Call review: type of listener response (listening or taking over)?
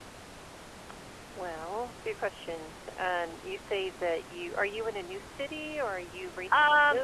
taking over